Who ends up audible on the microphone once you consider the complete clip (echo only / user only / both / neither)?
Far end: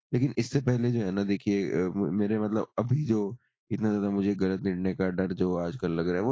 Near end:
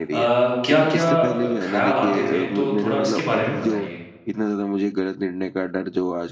both